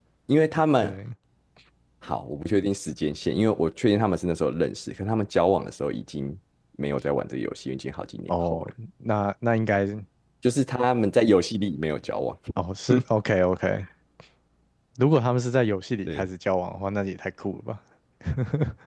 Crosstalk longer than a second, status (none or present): none